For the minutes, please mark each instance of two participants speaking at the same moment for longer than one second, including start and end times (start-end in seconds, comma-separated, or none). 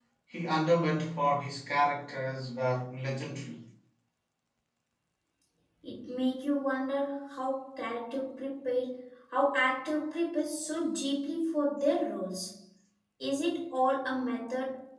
none